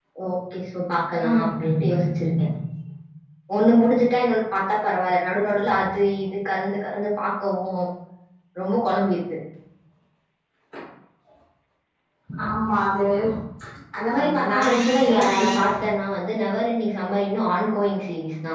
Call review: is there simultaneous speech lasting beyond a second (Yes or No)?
Yes